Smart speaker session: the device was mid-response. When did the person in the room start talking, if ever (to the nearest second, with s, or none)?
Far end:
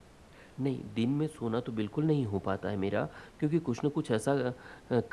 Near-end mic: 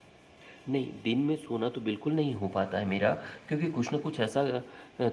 none